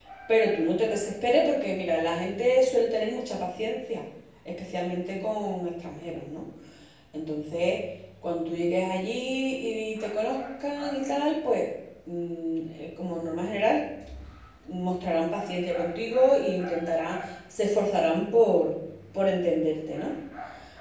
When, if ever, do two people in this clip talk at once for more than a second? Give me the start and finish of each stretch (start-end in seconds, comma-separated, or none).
none